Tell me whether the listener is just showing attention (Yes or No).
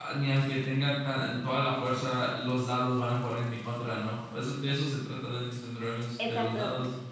No